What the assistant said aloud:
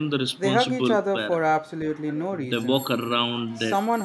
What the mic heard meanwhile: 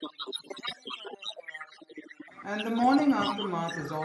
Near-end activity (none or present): present